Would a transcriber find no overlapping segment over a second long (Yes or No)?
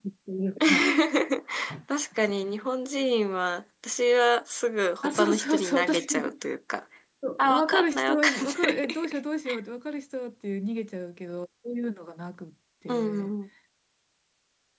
No